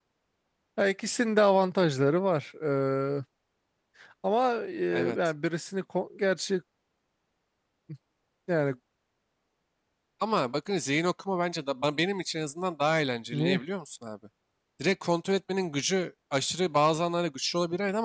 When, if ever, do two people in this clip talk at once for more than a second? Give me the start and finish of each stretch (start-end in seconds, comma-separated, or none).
none